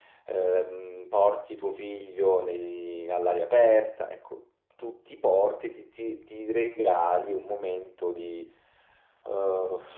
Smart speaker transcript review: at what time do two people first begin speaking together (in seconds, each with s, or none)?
none